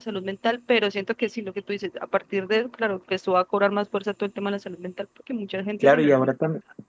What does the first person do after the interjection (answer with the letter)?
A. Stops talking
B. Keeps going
A